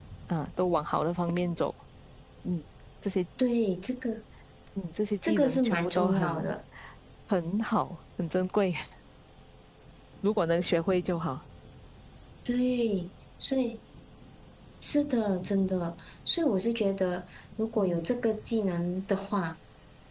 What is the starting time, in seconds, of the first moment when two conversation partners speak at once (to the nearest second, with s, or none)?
5 s